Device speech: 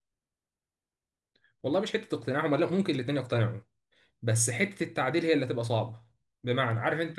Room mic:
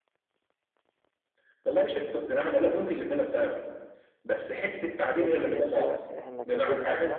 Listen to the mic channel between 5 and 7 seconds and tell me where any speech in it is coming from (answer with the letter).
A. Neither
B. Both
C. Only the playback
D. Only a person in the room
B